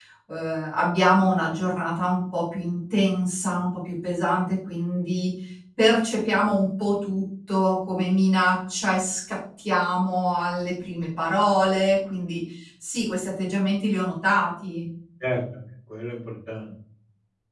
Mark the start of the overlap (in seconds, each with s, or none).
none